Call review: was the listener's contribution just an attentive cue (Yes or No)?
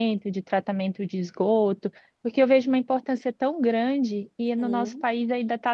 Yes